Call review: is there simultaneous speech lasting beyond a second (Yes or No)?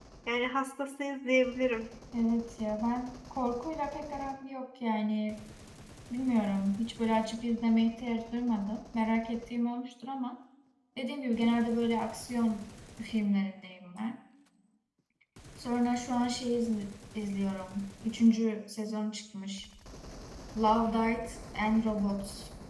No